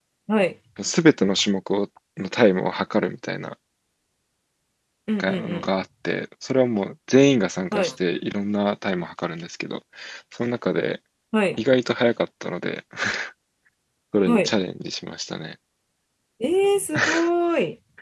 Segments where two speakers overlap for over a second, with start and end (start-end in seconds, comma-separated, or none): none